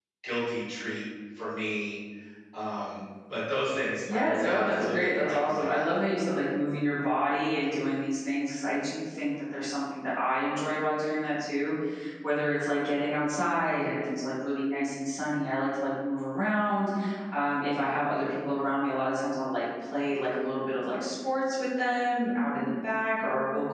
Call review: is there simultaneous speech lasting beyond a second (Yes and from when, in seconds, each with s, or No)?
Yes, from 4.0 s